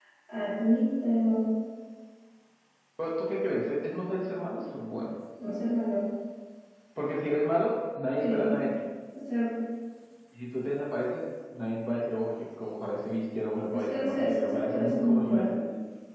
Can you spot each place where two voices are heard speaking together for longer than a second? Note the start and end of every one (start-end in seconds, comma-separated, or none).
13.7-15.6